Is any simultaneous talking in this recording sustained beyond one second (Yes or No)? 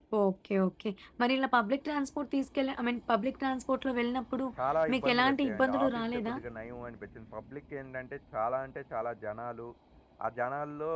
Yes